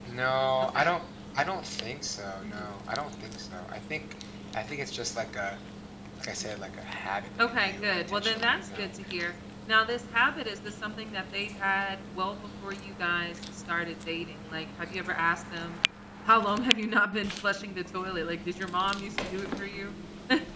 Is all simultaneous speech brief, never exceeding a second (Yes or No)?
No